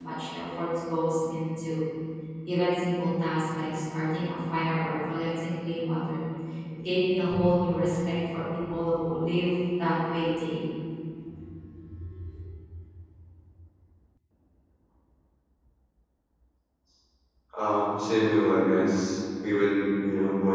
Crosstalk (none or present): none